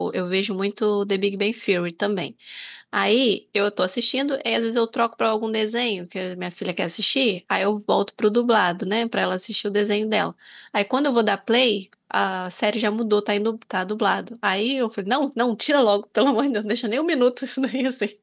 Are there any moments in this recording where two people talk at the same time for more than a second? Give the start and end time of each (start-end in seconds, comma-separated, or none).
none